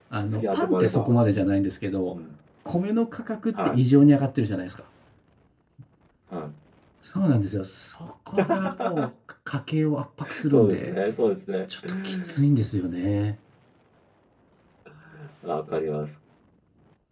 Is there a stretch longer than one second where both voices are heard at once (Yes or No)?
Yes